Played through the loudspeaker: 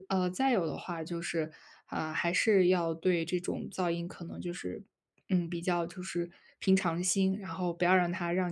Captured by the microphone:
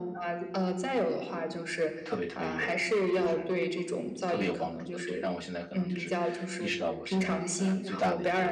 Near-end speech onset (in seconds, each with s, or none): 2.0 s